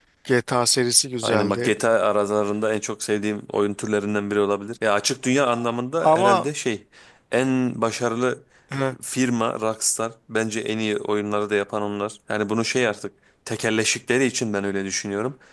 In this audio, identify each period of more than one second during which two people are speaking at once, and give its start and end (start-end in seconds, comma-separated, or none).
none